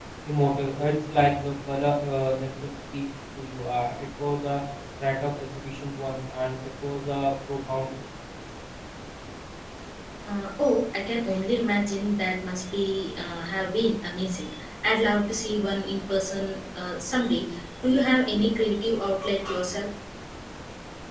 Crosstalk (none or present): none